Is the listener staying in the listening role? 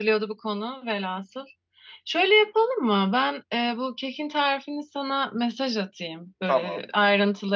Yes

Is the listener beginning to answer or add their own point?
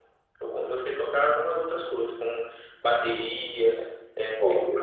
No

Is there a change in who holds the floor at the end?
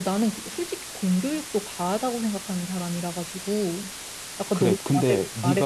Yes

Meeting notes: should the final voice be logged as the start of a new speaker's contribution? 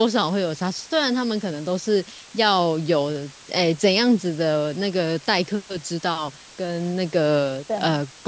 No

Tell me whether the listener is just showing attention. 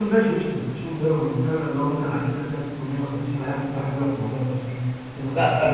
No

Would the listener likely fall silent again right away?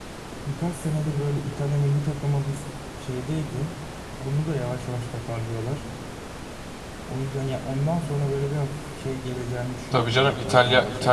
No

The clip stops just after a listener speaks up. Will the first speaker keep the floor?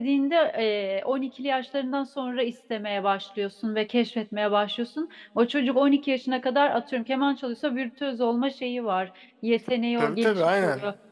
No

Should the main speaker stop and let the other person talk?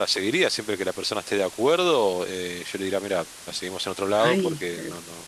No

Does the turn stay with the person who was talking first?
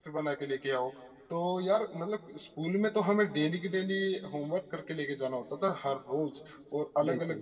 Yes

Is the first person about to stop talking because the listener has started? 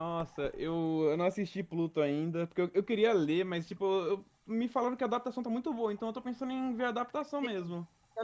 Yes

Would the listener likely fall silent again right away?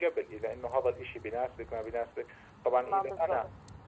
Yes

